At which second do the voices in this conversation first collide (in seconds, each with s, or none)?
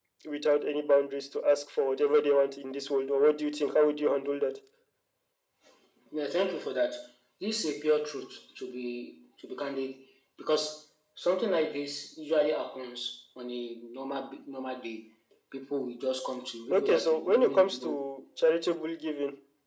16.7 s